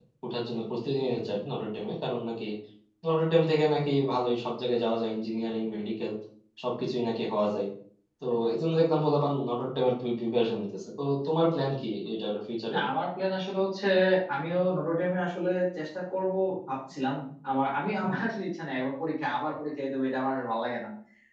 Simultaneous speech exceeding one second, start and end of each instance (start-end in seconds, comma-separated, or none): none